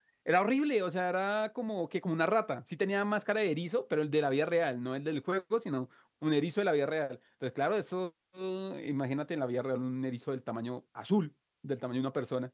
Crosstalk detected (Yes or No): No